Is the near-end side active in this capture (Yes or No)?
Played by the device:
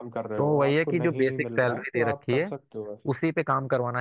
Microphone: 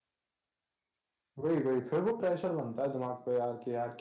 Yes